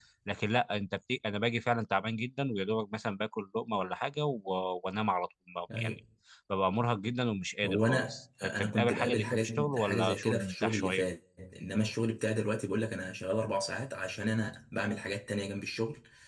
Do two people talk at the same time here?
Yes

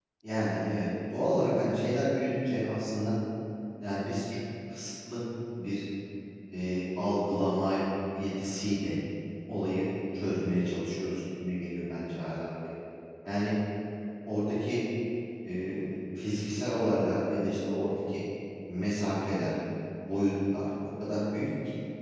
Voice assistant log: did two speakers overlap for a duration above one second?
No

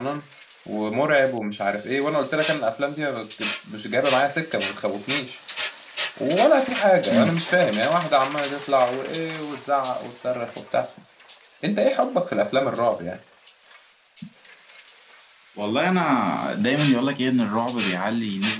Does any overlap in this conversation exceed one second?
No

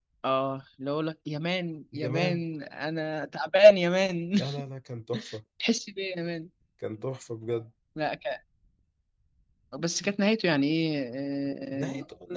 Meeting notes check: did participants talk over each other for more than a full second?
No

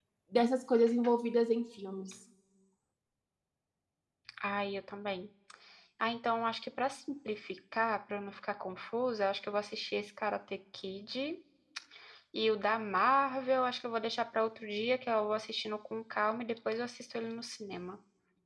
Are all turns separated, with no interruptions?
Yes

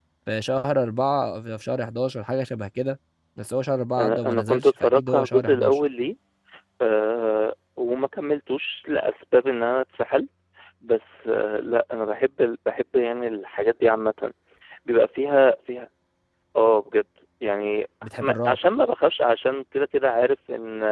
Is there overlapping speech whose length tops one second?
Yes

